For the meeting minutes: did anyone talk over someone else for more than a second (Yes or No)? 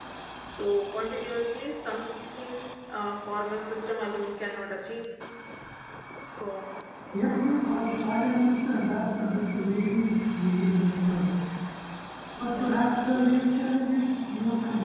No